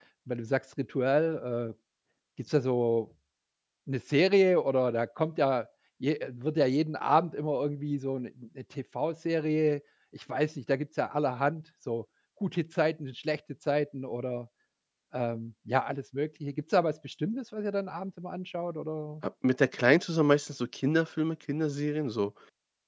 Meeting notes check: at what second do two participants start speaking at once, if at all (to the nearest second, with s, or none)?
none